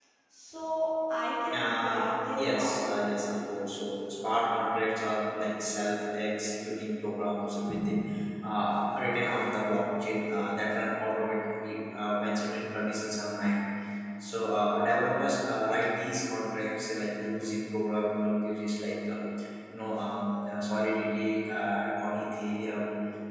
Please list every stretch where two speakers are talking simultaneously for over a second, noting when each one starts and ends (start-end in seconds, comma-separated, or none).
1.6-2.9